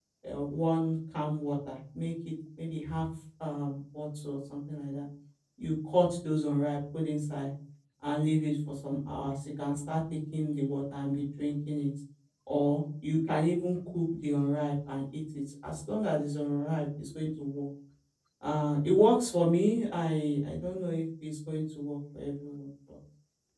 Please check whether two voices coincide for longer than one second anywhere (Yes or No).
No